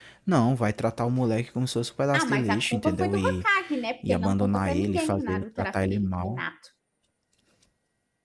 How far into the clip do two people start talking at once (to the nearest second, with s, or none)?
2 s